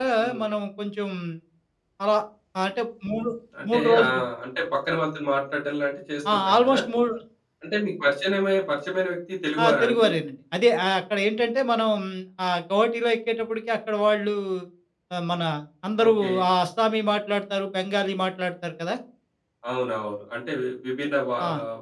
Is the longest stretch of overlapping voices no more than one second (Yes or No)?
Yes